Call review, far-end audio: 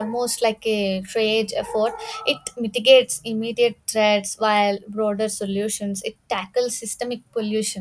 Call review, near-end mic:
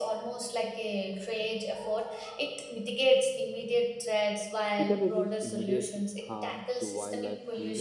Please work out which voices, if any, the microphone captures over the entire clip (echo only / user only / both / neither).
both